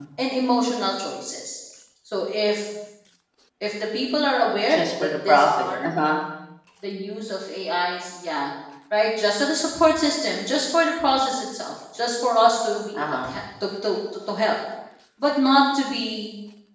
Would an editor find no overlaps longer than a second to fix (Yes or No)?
No